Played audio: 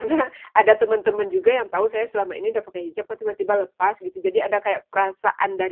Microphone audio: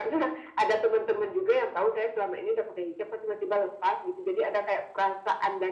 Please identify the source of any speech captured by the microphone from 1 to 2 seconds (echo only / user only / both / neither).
echo only